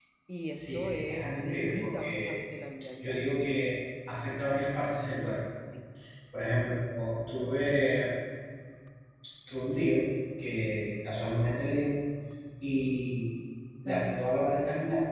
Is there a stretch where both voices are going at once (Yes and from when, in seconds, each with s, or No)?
Yes, from 0.5 s